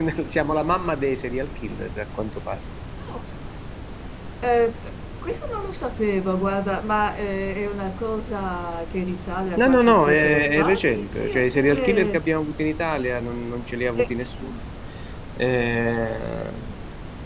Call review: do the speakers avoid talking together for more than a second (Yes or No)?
No